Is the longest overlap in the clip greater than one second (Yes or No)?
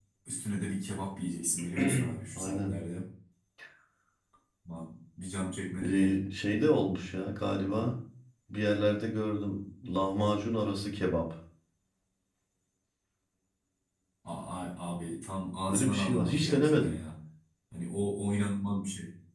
Yes